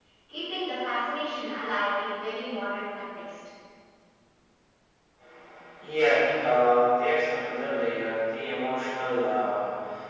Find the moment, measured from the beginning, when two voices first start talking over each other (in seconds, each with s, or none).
none